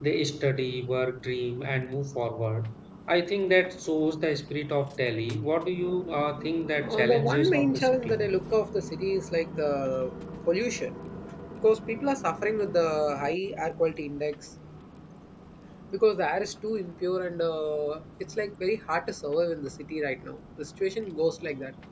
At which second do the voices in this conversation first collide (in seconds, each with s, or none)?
6.7 s